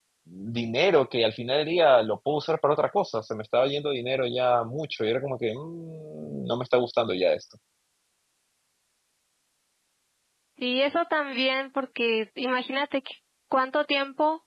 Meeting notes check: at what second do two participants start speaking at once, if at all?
none

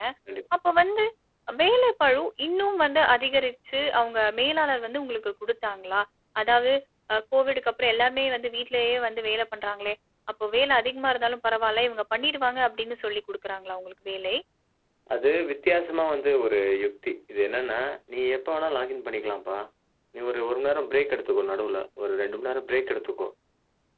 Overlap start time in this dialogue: none

